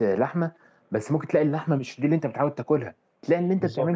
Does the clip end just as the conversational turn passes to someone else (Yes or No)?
No